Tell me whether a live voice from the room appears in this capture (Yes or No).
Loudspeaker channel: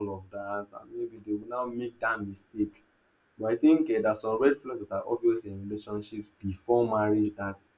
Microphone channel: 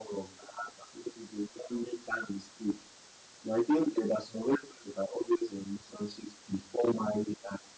No